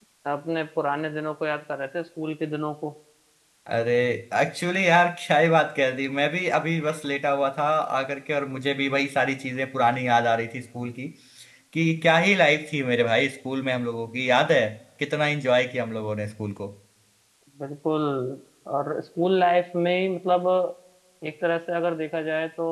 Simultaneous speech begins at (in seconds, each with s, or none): none